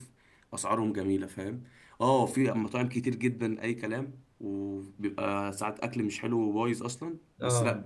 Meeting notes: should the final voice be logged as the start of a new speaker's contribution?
No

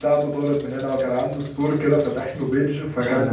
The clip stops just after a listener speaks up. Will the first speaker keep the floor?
Yes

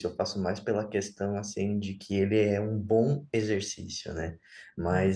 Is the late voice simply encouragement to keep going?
Yes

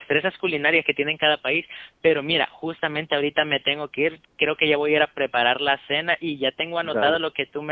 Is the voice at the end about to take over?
No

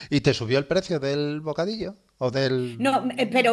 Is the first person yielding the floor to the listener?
Yes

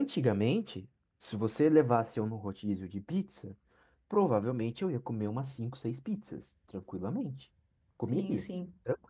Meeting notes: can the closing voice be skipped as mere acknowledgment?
Yes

